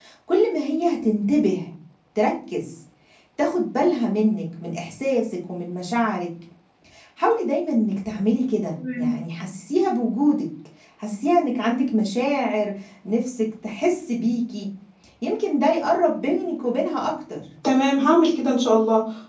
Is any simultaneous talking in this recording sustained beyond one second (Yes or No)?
No